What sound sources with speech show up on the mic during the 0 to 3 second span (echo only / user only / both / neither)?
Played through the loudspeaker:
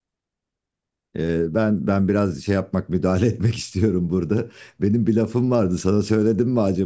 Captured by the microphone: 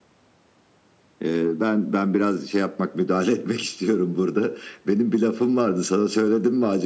echo only